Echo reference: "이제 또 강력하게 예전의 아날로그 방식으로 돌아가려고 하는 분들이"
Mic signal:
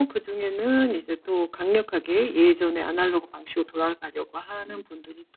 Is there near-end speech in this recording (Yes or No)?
No